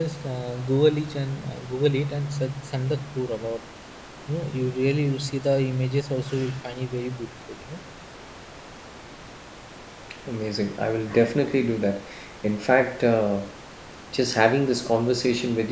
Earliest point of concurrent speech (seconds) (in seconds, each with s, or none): none